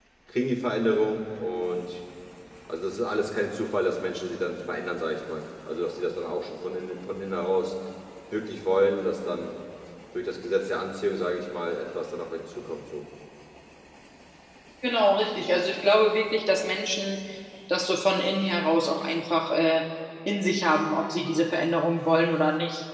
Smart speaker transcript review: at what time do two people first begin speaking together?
none

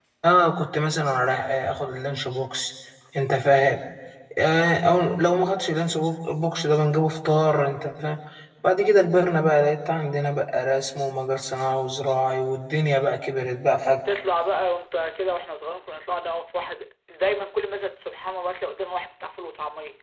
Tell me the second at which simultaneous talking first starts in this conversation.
none

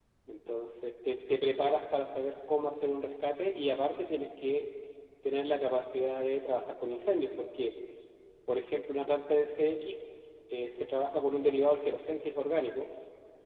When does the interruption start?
none

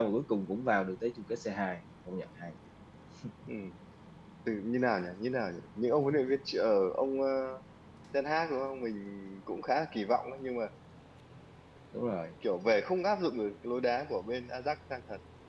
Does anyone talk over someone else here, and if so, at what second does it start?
none

